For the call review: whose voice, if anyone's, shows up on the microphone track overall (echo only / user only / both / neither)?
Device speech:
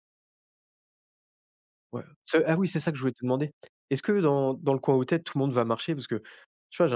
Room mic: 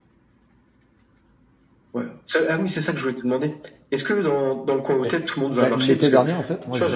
both